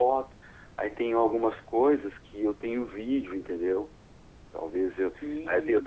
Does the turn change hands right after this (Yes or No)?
Yes